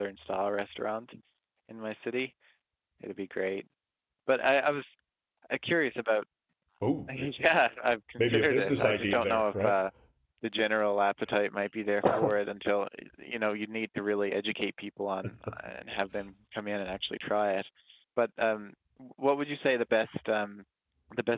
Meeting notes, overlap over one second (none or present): present